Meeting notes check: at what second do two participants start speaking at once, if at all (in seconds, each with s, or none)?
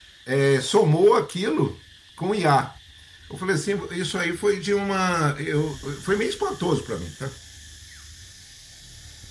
none